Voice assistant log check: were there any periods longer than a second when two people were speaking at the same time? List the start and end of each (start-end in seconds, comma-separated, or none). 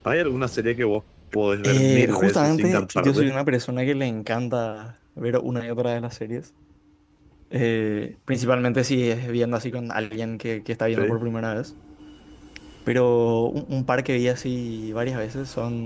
1.6-3.3